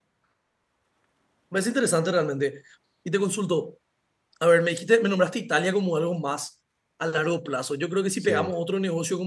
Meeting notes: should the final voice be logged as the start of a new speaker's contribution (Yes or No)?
No